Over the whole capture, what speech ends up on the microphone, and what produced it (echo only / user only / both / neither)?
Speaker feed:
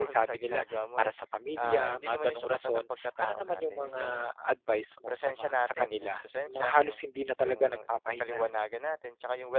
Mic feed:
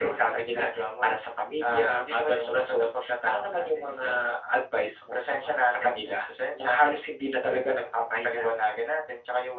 echo only